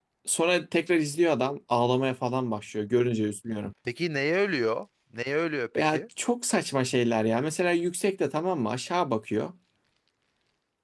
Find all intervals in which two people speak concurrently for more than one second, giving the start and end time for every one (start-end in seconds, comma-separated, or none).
none